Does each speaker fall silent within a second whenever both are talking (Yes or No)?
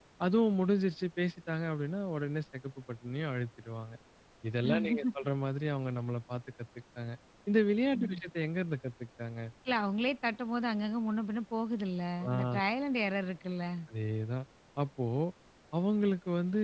Yes